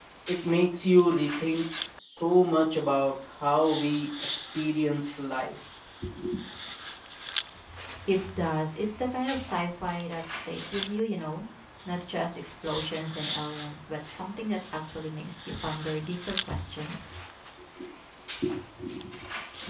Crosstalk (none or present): none